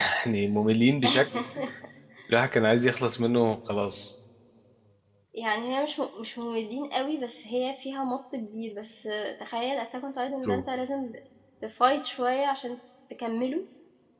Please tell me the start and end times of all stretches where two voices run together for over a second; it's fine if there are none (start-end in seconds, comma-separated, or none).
none